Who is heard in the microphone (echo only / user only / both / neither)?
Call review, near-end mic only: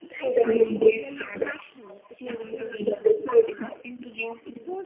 both